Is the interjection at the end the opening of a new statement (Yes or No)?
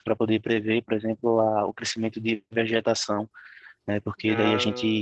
No